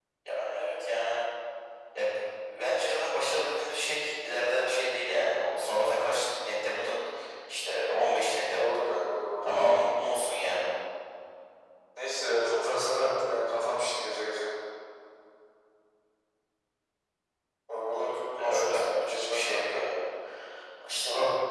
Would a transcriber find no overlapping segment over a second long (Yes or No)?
No